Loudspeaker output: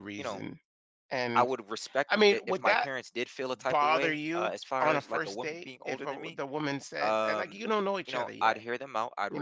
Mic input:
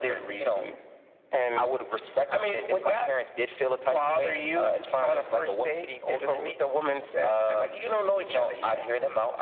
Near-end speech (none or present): none